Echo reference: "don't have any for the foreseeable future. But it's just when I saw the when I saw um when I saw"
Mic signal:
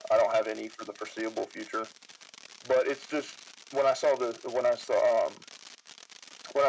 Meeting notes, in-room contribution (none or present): none